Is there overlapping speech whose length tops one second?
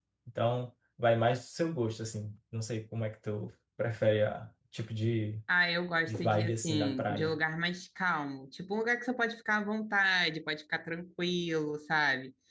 Yes, from 6.1 s

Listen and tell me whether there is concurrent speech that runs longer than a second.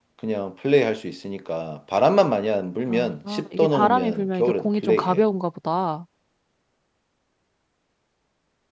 Yes, from 2.9 s

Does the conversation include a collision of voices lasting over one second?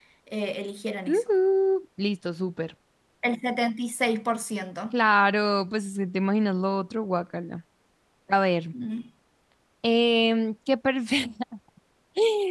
No

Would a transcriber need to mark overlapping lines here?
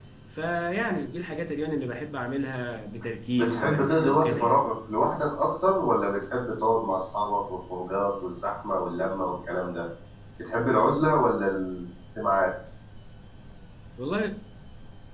Yes, from 3.4 s

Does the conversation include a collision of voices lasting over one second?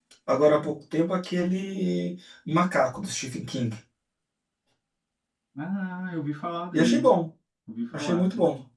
No

